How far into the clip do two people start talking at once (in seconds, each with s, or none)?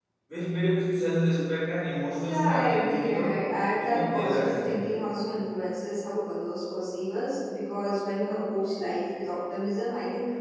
2.2 s